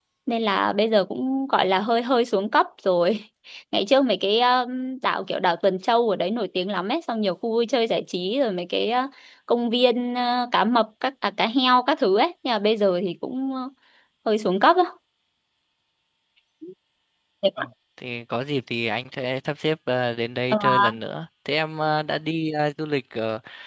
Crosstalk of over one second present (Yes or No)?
No